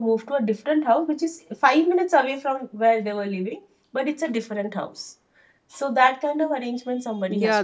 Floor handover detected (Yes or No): Yes